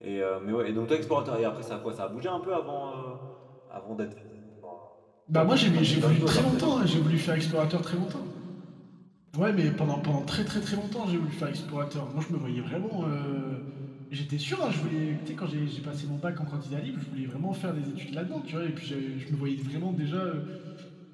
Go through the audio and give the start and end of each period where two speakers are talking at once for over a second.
5.4-7.0

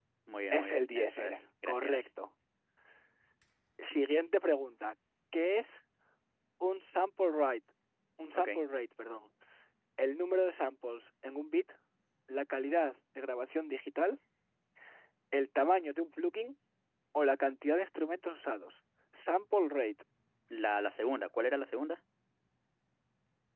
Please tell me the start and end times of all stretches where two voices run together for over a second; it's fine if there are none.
0.5-2.0

